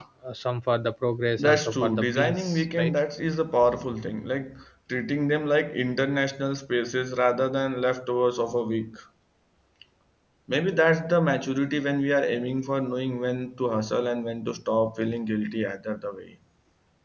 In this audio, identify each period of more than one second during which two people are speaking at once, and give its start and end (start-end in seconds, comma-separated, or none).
1.4-2.9